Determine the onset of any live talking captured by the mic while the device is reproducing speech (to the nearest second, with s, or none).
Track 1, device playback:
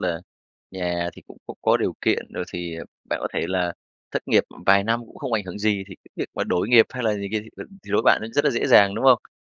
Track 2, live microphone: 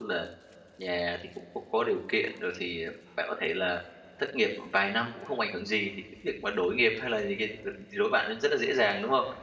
none